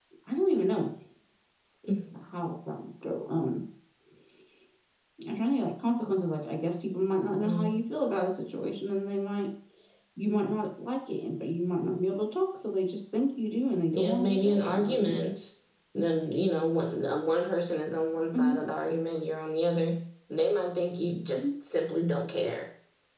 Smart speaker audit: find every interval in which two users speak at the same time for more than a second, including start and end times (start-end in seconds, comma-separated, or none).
13.9-15.2